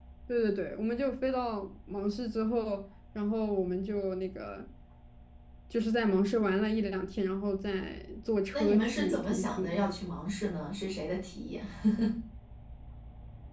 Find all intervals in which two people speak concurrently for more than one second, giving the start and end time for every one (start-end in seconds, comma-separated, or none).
8.5-9.8